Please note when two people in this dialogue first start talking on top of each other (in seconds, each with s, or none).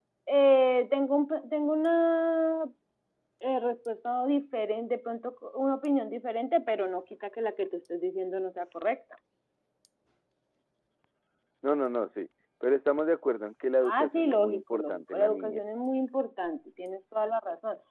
13.8 s